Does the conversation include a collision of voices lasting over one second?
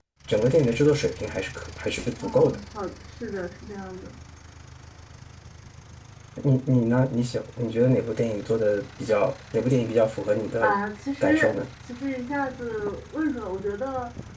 No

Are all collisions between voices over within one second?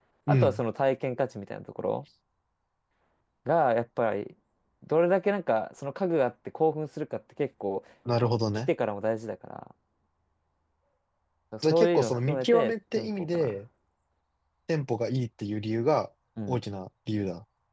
No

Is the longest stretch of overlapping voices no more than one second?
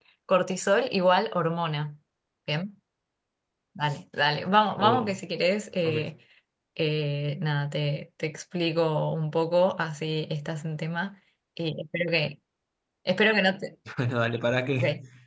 Yes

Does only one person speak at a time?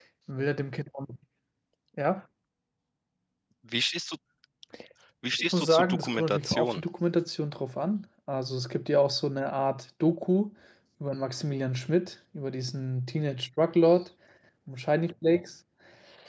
No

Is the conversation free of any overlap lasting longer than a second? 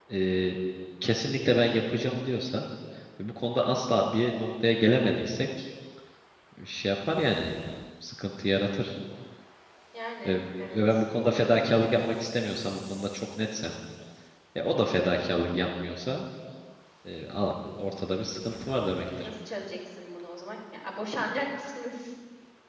Yes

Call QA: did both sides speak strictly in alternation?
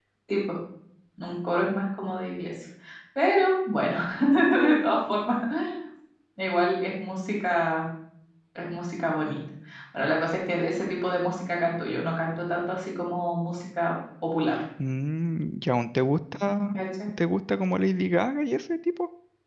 Yes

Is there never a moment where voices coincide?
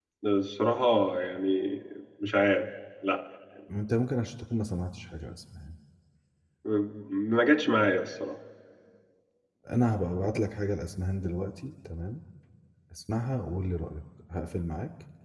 Yes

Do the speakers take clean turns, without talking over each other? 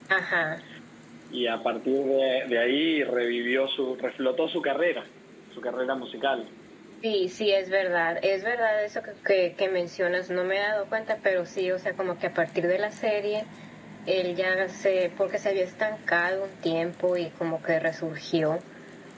Yes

